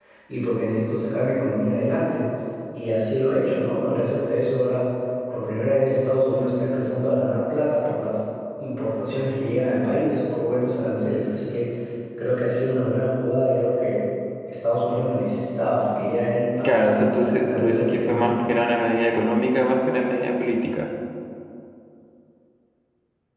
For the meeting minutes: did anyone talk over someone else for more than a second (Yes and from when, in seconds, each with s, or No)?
Yes, from 16.6 s